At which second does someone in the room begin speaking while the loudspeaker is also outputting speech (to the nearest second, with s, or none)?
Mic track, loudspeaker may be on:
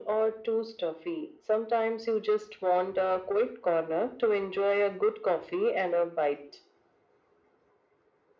none